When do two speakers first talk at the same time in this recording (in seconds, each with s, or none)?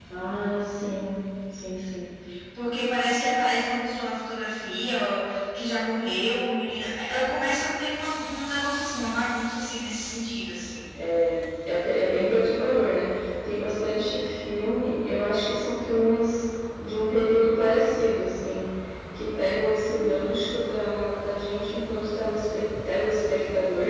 none